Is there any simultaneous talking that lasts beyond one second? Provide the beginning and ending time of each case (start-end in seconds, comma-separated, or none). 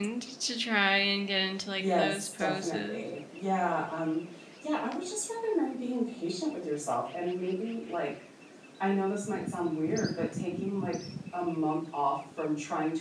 1.8-3.0